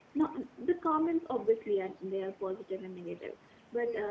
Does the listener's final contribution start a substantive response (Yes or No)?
No